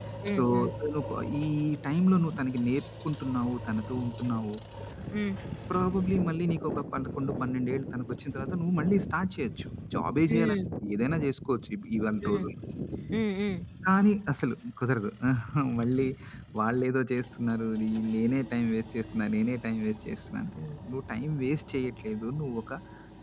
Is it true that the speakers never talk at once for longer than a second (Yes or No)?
Yes